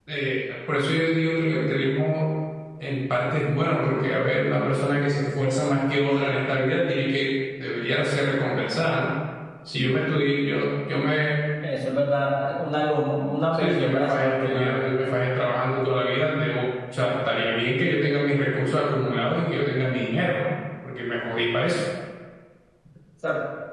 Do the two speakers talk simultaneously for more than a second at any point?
Yes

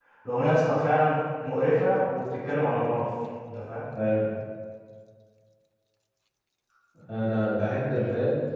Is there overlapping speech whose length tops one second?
No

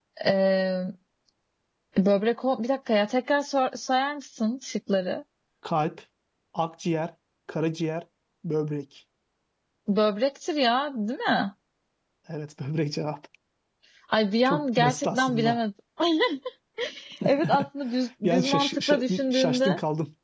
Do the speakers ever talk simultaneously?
Yes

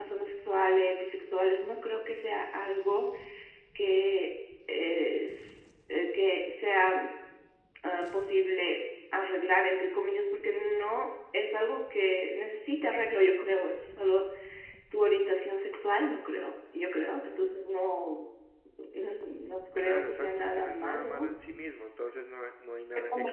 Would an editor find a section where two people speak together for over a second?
Yes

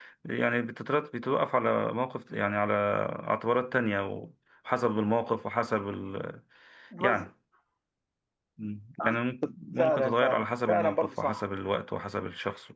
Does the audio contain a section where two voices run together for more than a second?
Yes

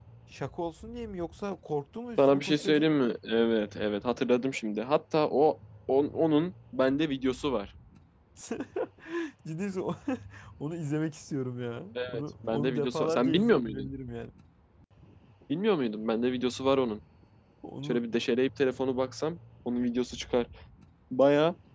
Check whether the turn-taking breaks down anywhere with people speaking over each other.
Yes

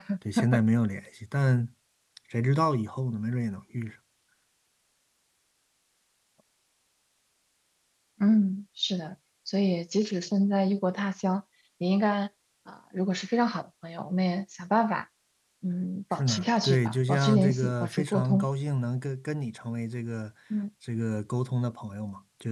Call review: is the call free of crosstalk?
No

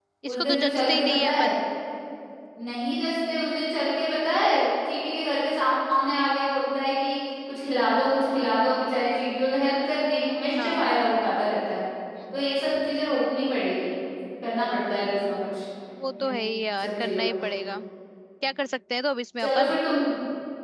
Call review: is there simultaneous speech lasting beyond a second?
Yes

